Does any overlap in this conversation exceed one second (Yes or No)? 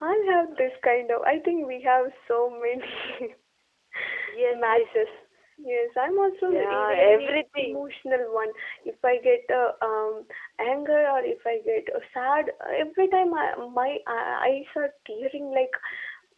Yes